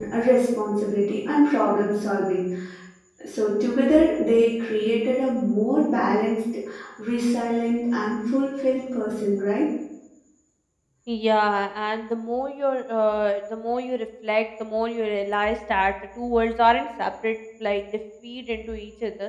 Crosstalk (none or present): none